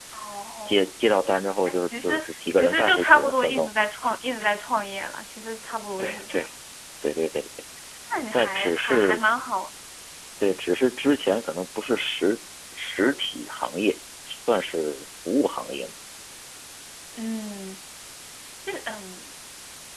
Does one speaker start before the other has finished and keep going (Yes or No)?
Yes